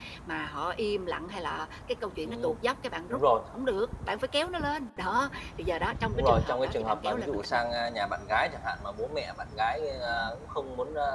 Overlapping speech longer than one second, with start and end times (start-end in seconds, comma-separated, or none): 6.2-7.6